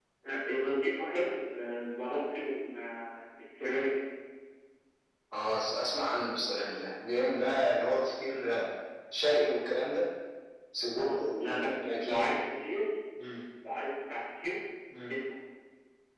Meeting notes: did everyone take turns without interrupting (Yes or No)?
No